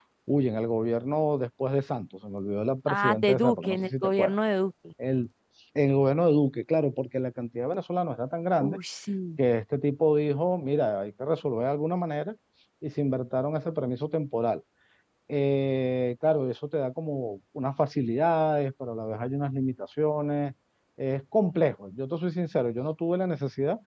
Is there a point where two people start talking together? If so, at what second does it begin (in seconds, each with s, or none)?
2.9 s